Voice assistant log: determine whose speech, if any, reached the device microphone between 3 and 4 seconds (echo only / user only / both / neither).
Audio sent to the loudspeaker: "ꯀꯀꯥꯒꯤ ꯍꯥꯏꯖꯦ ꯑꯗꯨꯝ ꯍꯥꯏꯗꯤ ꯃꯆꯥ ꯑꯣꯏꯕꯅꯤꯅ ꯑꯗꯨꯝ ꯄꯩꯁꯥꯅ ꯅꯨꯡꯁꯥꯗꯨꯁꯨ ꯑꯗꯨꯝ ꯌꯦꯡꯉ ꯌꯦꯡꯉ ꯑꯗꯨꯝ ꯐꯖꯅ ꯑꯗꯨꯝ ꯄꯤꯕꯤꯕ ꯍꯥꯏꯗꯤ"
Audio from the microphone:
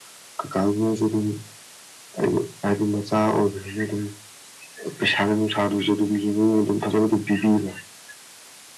echo only